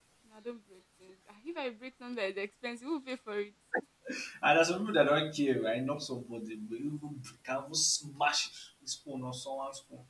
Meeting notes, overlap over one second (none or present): none